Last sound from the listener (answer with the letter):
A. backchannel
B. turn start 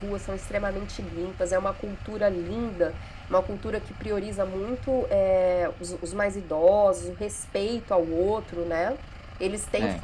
A